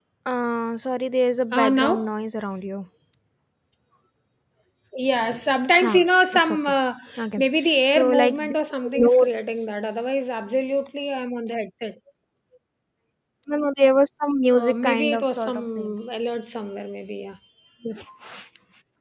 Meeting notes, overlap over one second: present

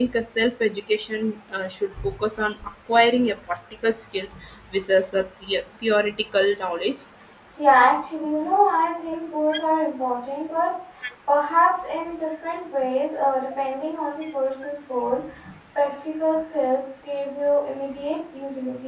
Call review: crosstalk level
none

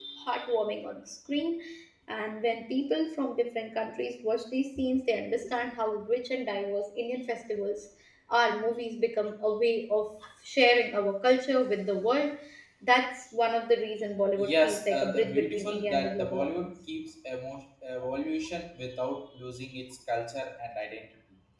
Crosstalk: present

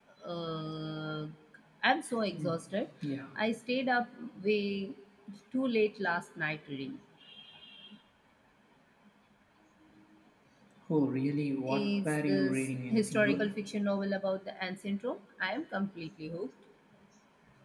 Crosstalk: present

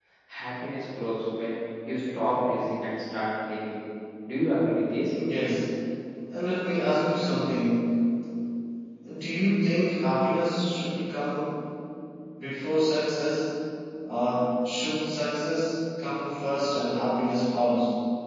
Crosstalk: none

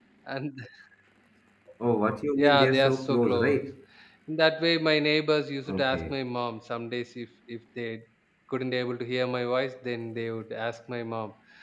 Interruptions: present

